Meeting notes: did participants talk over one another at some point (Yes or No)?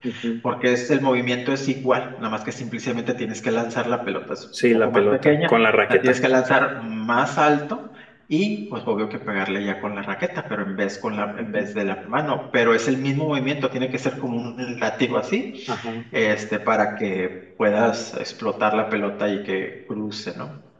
Yes